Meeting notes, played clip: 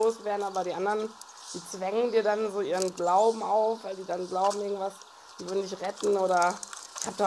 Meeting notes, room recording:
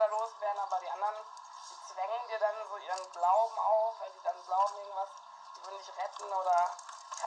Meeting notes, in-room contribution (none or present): none